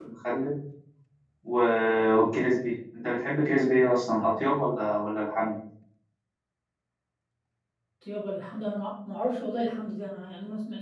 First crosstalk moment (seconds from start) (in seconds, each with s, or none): none